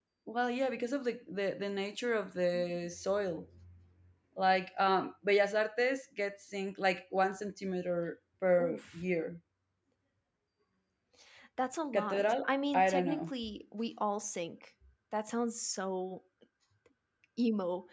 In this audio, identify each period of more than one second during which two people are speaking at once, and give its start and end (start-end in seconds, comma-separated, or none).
11.9-13.3